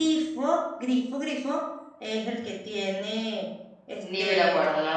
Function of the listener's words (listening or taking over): taking over